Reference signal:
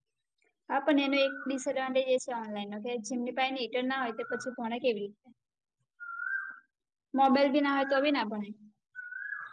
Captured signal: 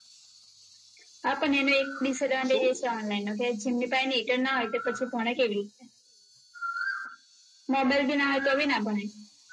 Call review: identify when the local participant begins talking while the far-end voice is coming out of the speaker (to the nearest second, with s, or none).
2 s